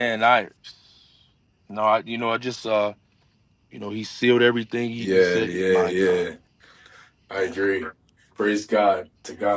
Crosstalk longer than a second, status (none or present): present